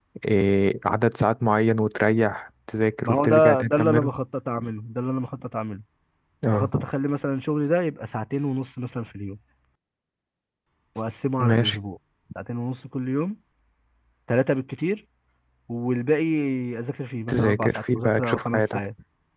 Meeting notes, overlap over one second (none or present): present